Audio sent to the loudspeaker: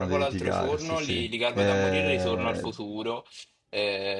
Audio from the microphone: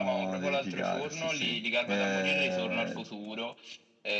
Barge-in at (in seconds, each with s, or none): none